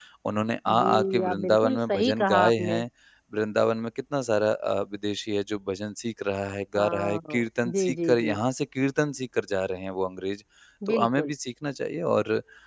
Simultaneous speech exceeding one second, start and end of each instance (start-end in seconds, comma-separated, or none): 0.7-2.8, 6.8-8.4